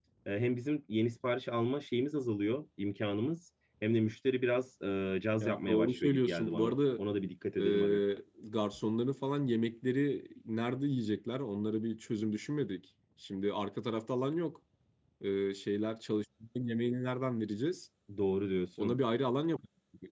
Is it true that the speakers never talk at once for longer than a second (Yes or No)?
No